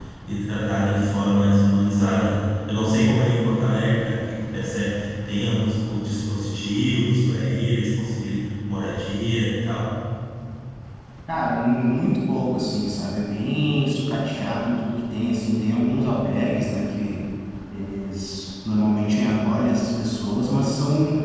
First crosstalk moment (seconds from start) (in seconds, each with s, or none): none